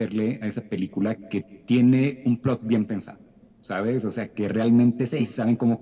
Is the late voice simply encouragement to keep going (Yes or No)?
Yes